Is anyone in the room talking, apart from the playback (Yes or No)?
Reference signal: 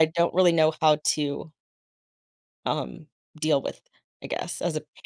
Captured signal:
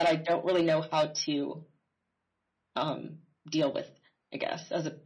No